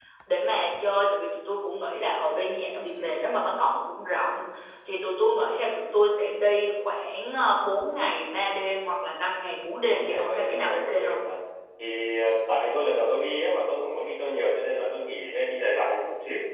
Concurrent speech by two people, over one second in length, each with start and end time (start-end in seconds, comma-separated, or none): 9.8-11.2